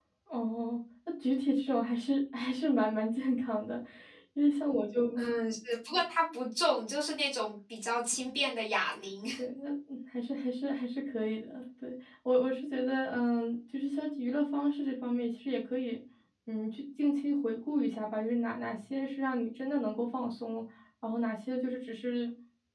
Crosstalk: none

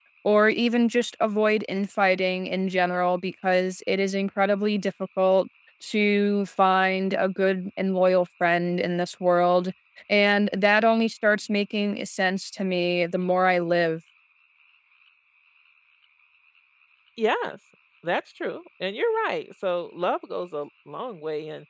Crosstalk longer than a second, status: none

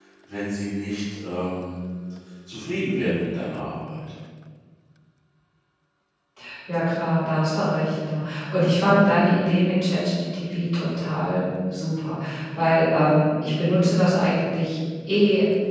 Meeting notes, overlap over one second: none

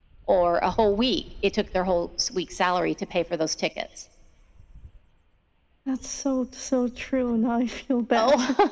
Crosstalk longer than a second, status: none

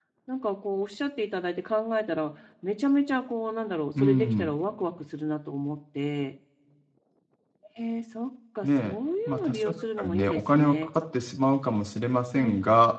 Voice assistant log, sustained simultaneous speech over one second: present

